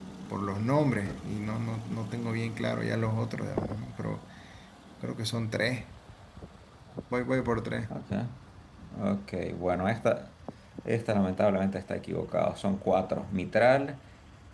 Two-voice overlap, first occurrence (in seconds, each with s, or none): none